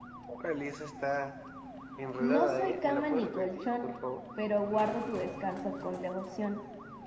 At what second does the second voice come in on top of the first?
2.2 s

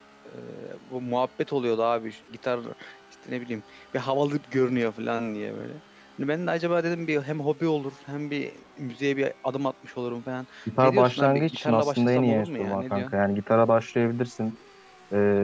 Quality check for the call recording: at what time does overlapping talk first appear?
10.7 s

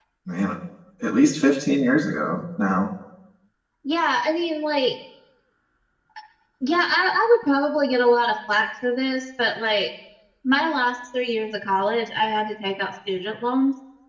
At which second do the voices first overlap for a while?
none

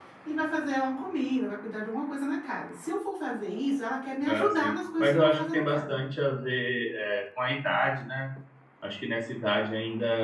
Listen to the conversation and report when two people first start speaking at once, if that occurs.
4.2 s

